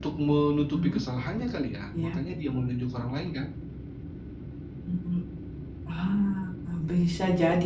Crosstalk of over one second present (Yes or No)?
No